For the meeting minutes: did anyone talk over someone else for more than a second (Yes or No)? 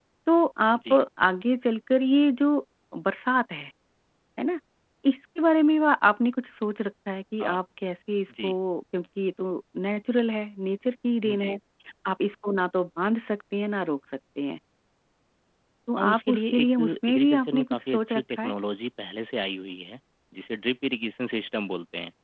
Yes